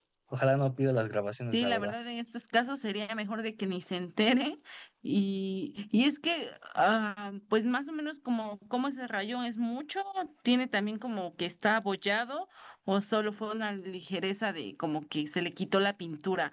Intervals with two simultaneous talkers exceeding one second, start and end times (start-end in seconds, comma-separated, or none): none